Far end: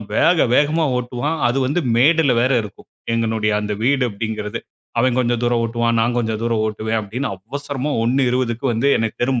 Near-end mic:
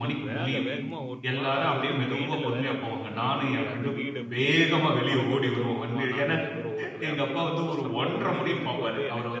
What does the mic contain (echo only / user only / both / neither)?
both